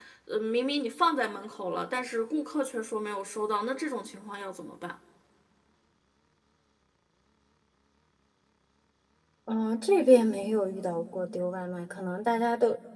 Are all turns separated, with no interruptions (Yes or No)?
Yes